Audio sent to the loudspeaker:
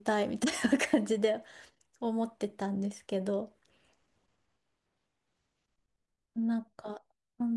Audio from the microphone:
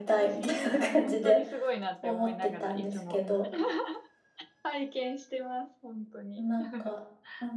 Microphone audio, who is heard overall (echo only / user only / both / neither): both